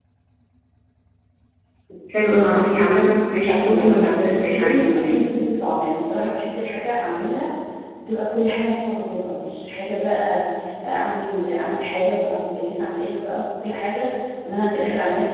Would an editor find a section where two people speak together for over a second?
Yes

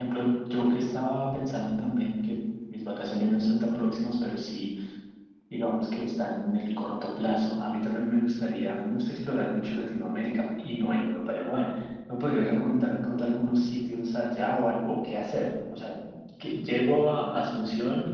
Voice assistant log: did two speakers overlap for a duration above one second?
No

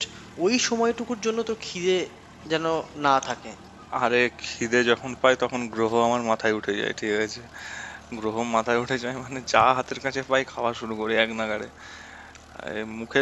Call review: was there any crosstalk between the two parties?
No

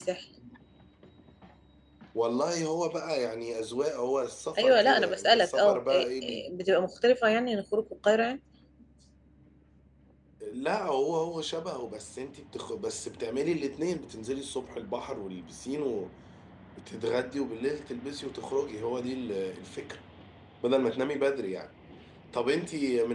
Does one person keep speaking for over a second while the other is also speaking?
Yes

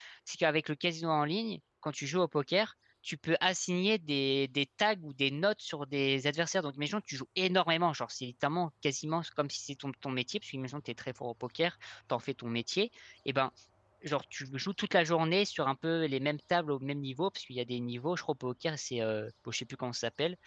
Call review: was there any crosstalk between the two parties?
No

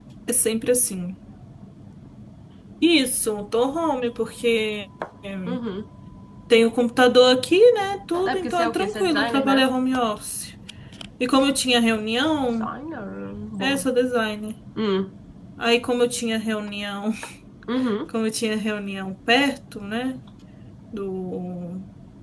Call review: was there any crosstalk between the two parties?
Yes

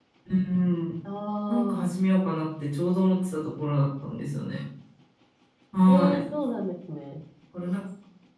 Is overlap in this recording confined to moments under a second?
Yes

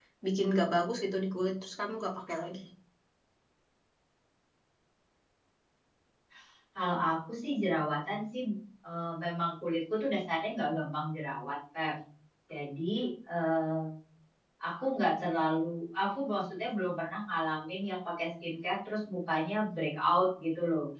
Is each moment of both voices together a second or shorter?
Yes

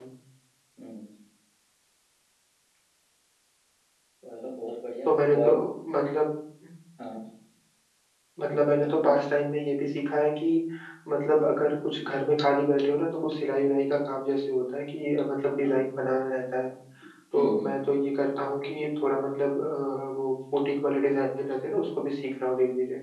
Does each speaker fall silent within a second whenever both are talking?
Yes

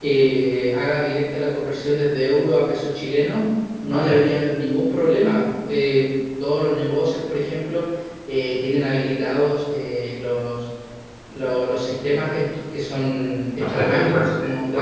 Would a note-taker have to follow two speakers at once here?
Yes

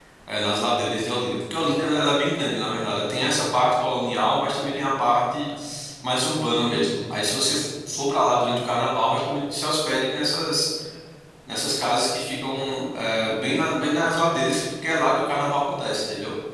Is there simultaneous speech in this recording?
No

